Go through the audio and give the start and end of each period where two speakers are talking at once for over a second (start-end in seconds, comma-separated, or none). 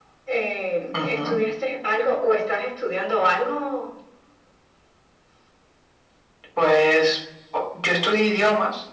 none